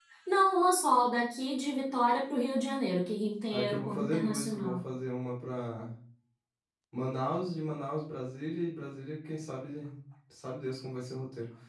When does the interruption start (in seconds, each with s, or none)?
3.5 s